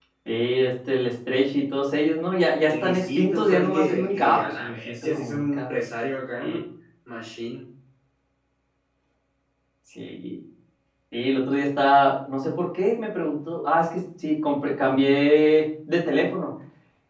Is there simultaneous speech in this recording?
Yes, from 2.7 s

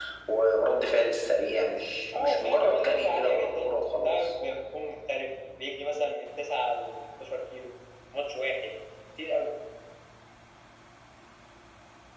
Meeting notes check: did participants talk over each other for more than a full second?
Yes, from 2.1 s

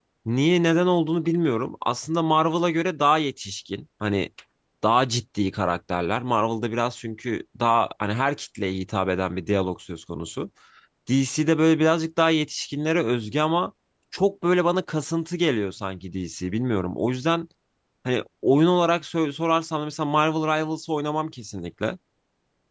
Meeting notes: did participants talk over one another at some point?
No

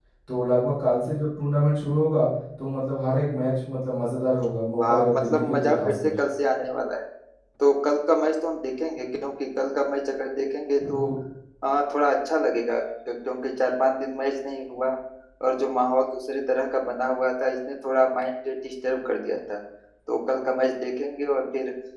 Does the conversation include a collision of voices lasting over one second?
Yes, from 4.7 s

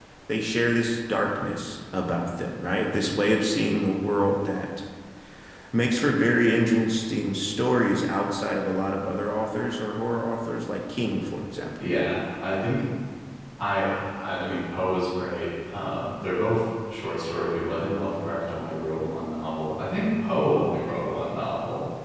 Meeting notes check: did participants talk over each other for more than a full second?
No

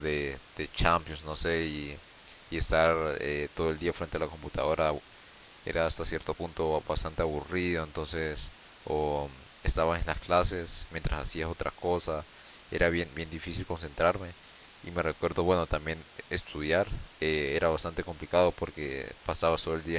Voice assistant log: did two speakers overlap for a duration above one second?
No

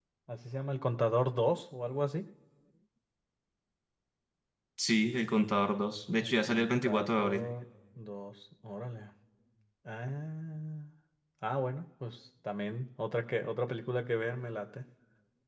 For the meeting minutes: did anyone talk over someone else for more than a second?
Yes, from 6.2 s

